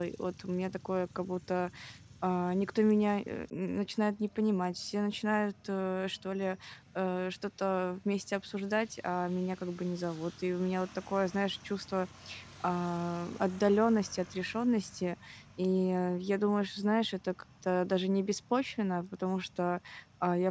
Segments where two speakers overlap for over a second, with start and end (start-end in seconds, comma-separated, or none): none